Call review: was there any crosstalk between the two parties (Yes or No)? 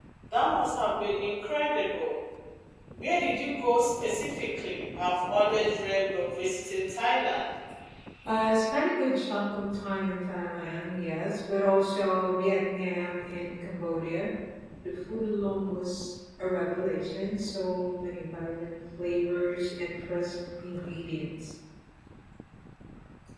No